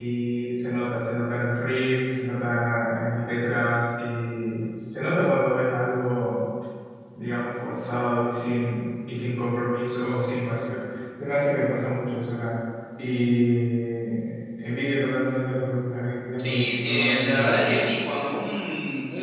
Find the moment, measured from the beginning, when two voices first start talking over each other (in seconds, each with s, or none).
16.4 s